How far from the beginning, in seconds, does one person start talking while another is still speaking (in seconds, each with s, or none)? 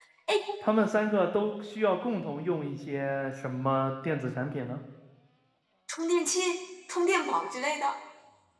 none